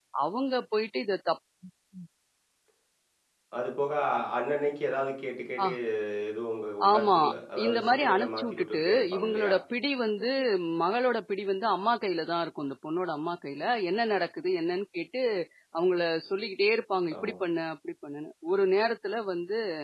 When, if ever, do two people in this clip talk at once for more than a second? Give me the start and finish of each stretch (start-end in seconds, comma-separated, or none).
7.6-9.5